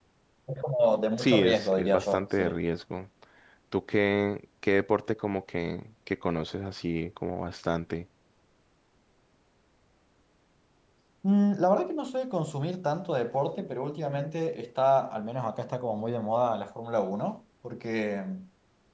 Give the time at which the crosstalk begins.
1.2 s

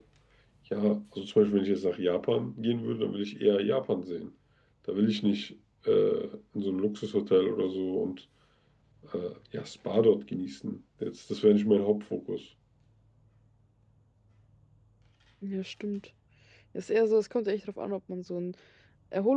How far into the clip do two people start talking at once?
none

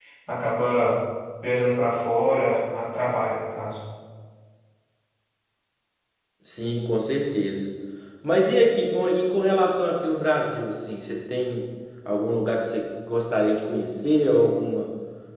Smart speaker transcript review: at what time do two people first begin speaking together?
none

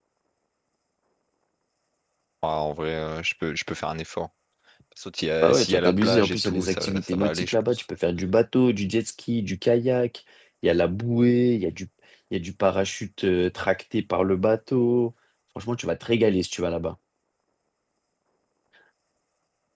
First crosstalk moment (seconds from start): 5.4 s

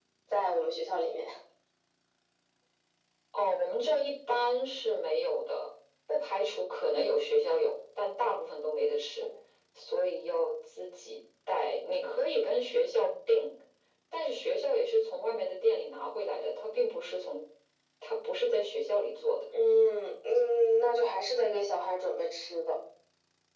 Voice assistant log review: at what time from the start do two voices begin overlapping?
none

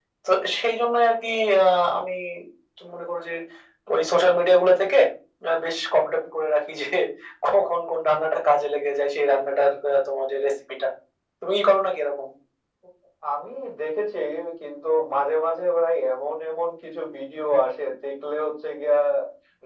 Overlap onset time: none

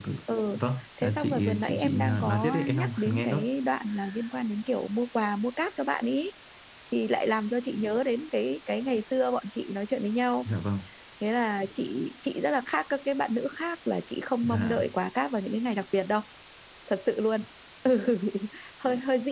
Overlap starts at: 1.0 s

